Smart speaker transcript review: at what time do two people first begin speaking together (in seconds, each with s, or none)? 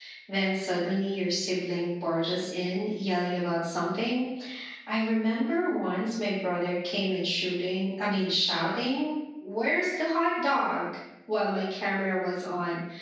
none